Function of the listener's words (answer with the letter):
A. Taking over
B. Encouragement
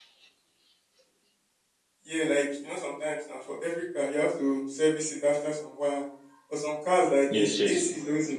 B